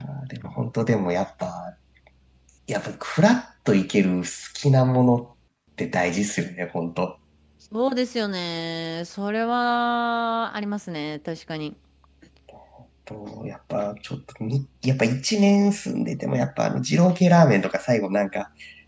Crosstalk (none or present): none